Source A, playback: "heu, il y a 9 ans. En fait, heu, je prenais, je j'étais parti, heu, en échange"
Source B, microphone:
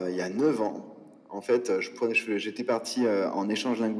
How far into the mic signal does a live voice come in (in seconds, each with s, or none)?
none